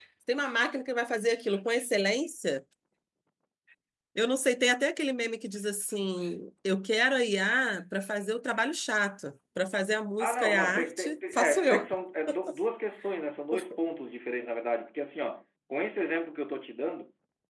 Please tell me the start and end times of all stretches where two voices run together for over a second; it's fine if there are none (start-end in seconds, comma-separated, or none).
10.2-11.9